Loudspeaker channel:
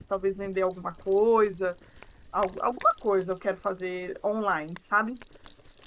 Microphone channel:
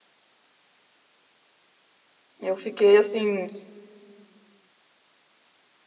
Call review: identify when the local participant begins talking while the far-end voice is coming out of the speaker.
2.4 s

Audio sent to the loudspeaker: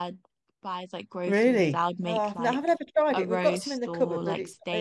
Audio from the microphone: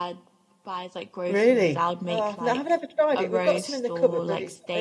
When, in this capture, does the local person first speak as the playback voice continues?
none

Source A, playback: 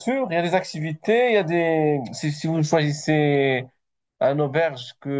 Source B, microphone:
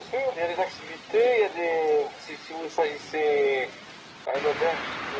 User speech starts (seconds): none

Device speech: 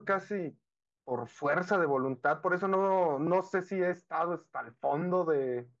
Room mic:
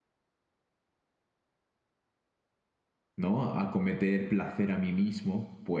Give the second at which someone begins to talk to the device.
3.2 s

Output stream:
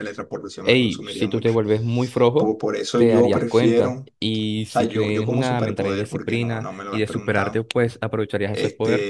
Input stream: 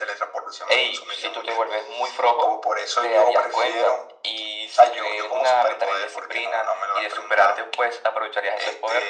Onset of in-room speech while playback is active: none

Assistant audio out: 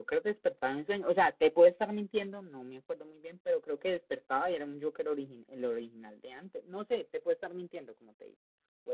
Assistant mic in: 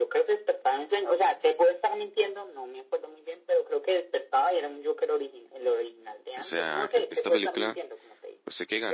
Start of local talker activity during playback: 6.4 s

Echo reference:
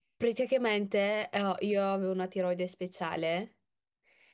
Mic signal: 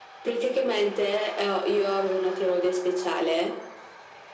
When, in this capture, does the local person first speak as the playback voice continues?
none

